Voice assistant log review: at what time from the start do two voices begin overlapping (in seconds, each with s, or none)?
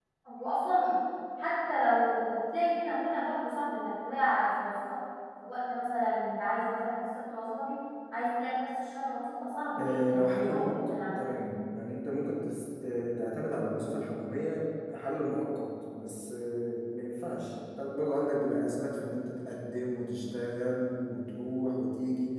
9.8 s